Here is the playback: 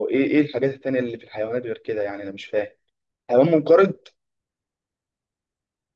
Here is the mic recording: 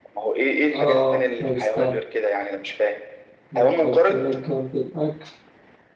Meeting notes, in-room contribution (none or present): present